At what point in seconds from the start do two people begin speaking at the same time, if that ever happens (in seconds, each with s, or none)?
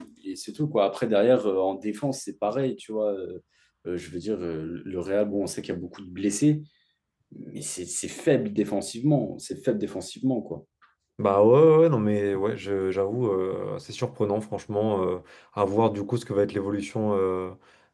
none